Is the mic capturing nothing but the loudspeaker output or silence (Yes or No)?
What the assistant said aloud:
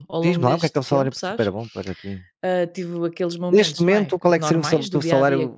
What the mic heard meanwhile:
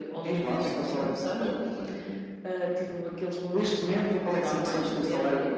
Yes